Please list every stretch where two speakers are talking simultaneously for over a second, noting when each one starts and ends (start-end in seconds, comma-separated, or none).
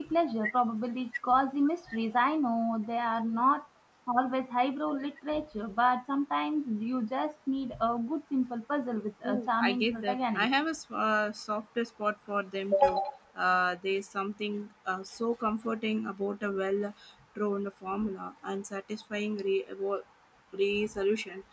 9.2-10.5